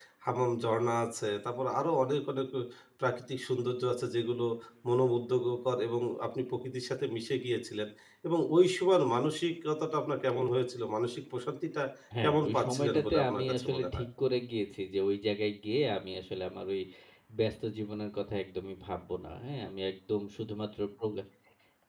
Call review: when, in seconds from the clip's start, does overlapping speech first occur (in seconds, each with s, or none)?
12.2 s